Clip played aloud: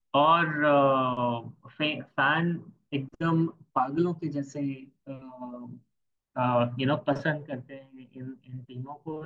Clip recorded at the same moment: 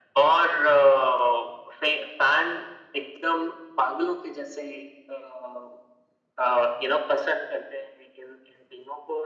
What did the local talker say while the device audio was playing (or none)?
none